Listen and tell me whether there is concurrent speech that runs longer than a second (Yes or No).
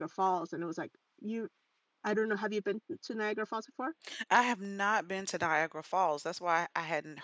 No